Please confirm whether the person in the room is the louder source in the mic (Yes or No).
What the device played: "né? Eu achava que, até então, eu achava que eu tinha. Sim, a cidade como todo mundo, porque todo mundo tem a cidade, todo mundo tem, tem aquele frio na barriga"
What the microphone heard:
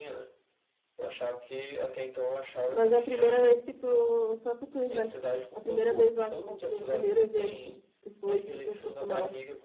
Yes